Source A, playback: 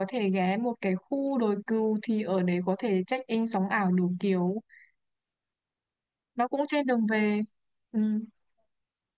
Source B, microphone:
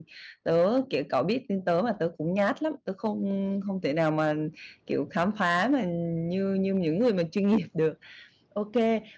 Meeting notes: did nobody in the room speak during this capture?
No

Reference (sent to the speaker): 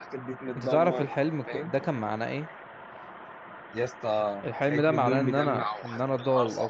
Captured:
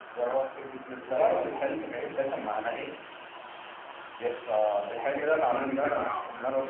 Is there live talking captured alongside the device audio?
No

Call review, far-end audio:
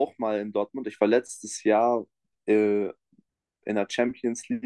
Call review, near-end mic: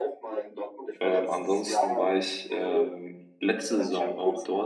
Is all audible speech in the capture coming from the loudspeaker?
No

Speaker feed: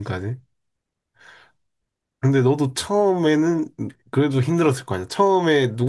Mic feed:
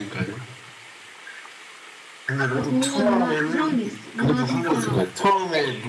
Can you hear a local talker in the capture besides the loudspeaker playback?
Yes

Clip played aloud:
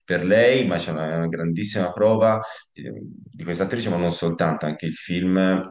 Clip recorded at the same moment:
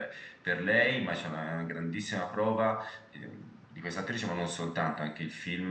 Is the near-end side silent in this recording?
Yes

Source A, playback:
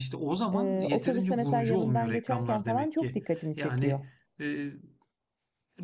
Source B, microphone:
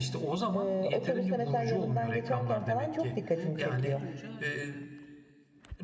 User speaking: Yes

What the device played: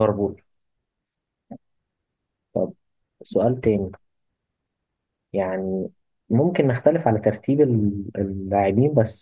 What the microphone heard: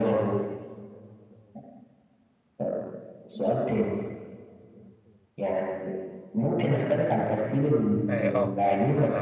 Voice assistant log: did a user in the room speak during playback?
Yes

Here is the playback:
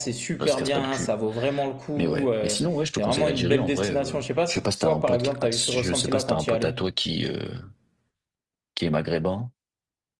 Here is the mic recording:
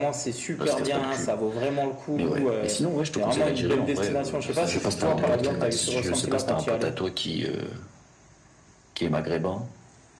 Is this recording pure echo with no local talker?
No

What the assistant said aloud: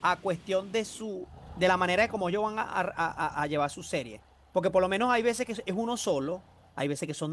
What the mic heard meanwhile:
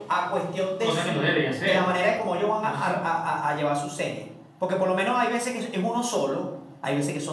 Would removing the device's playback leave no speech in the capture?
No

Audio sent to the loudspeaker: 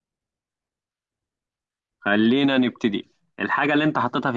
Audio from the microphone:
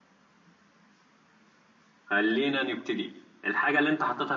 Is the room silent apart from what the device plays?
Yes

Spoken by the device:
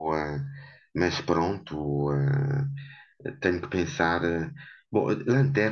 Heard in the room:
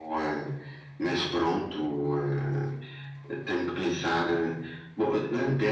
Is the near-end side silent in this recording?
Yes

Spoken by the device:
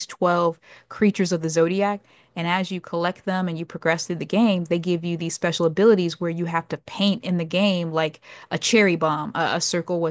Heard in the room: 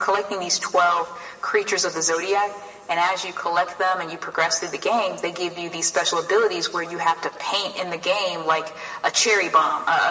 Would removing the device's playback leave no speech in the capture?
Yes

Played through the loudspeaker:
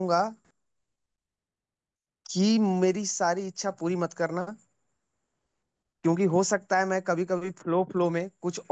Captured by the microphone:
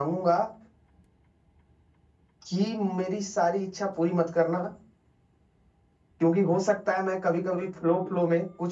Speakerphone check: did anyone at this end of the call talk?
No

